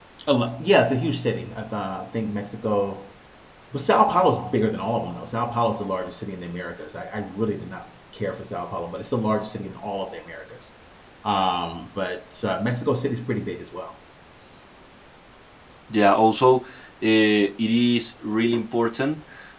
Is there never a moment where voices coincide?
Yes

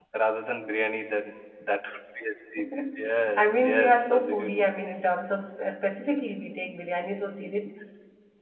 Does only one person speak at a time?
No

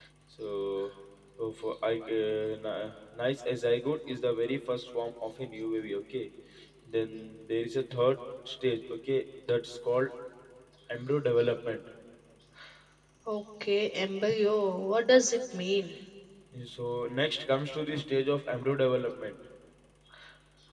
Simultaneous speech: No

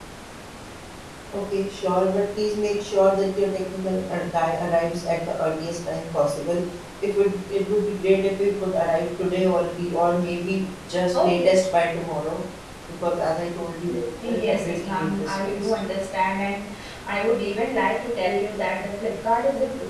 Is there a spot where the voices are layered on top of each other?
Yes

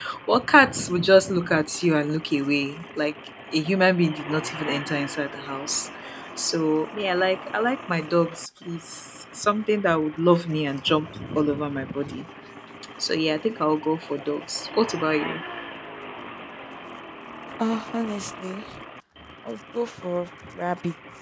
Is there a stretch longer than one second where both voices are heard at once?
No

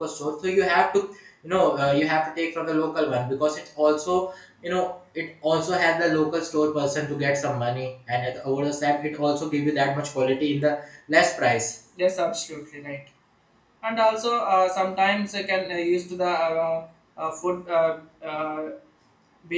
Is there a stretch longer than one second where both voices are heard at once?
No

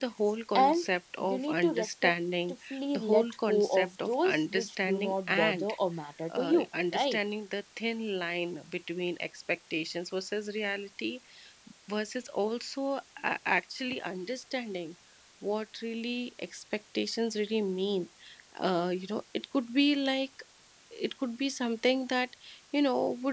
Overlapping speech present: Yes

